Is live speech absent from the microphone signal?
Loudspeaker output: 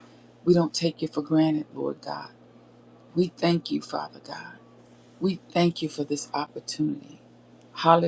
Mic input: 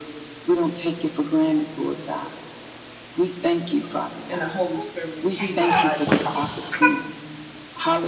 No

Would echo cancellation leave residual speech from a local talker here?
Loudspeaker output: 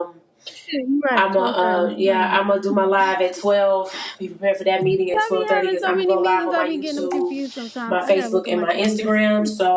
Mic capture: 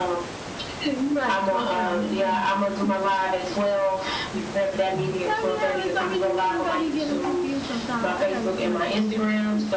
No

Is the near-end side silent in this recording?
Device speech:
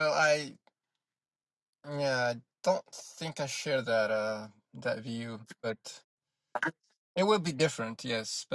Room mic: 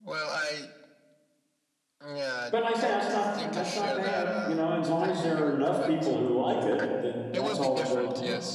No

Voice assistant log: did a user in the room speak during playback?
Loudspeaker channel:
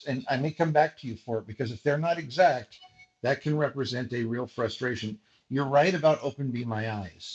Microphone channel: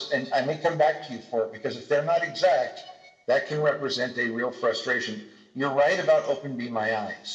No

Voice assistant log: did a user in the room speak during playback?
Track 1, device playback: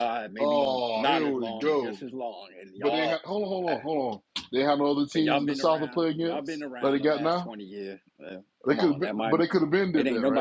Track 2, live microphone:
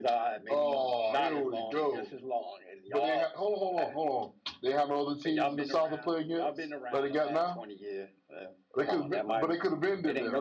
No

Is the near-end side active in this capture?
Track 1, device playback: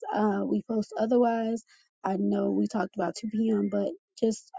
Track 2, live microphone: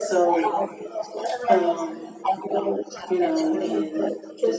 Yes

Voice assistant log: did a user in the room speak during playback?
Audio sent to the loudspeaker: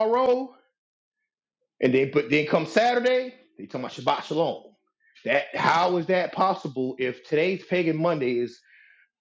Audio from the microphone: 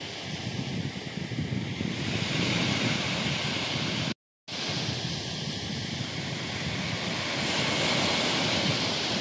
No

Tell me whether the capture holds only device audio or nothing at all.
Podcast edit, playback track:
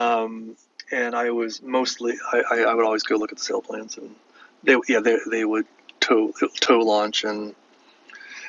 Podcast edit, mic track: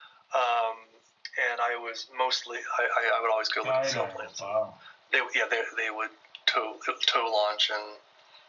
No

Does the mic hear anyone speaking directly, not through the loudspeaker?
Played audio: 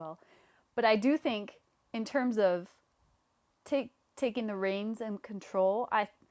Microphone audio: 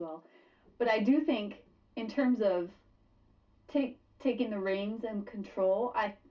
No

